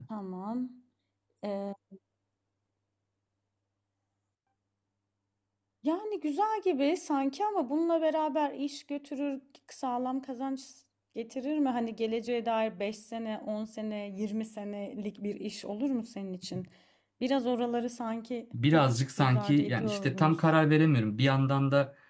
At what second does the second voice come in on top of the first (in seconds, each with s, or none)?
18.5 s